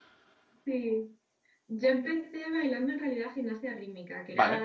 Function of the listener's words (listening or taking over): listening